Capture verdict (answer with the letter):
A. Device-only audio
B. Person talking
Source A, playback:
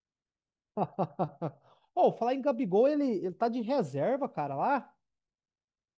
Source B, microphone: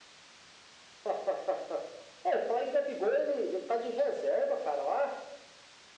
A